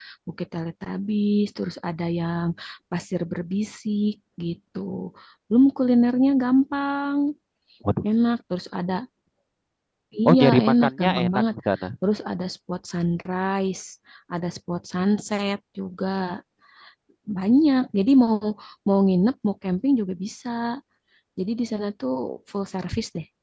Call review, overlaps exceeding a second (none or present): present